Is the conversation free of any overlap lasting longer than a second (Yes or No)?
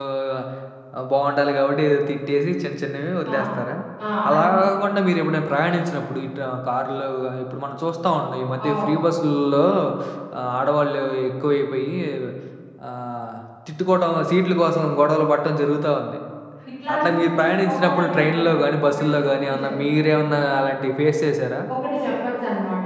No